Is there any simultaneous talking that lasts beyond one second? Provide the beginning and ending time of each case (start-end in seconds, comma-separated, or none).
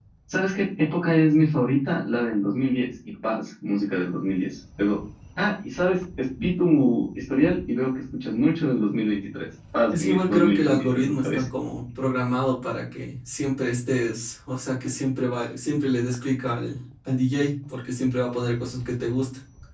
9.9-11.4